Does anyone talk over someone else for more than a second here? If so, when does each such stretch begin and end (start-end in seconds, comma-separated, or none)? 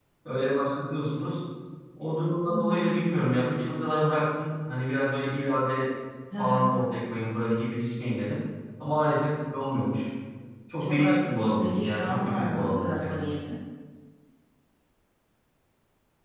10.8-13.2